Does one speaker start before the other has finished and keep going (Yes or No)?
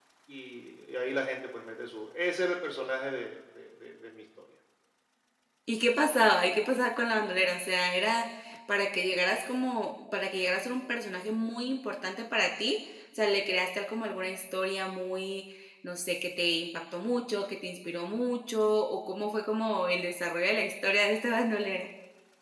No